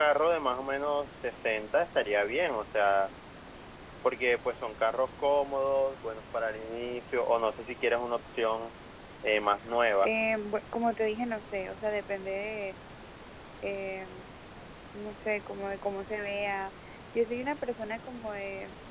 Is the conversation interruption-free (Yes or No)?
Yes